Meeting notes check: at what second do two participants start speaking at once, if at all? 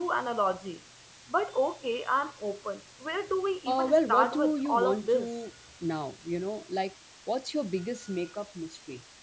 3.7 s

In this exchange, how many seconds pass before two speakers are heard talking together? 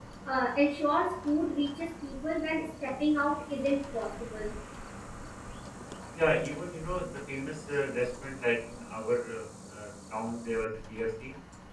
none

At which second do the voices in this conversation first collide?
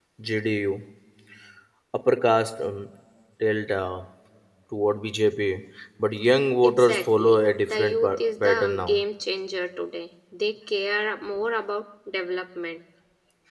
6.6 s

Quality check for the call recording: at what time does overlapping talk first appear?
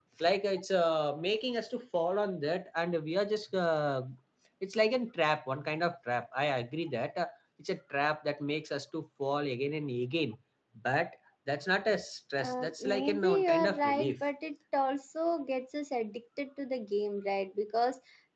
12.4 s

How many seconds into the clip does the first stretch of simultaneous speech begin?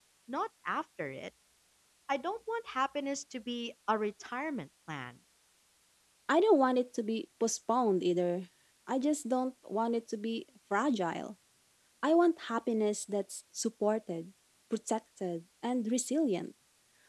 none

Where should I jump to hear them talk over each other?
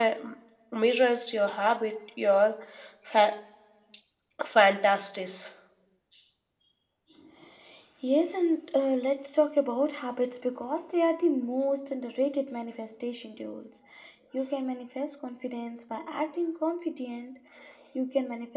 none

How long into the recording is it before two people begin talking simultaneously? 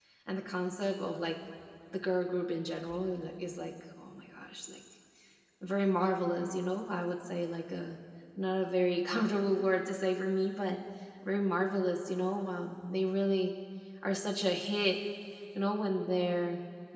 none

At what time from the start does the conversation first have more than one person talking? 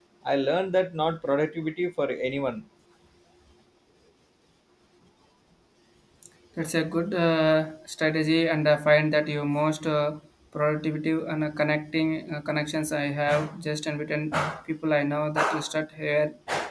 none

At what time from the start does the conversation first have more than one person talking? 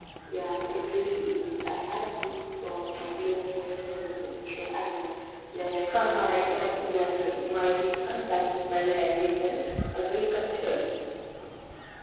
5.9 s

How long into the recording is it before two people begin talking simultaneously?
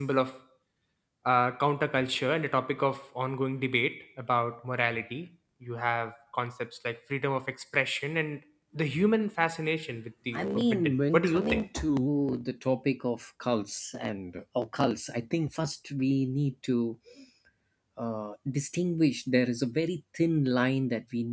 10.3 s

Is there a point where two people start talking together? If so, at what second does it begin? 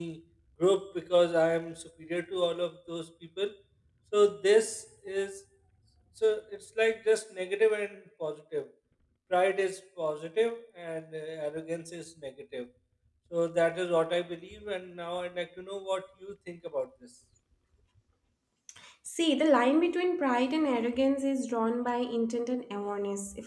none

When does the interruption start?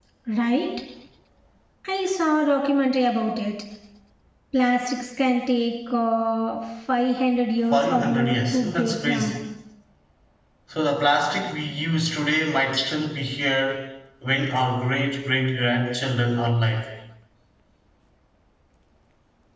7.7 s

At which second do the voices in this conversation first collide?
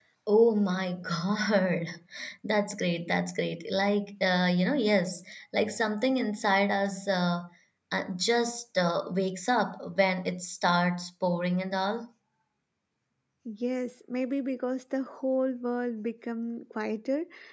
none

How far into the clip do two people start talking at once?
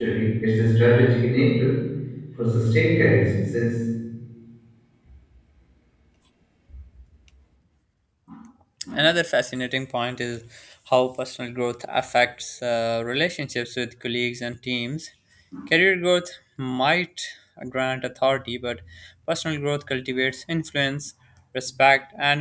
none

